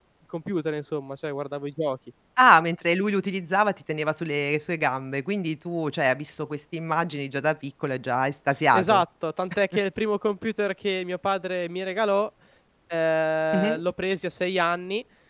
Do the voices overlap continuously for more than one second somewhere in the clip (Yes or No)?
No